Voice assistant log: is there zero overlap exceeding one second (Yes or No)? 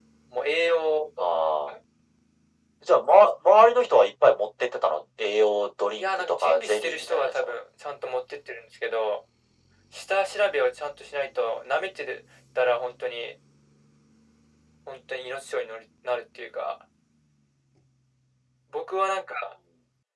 No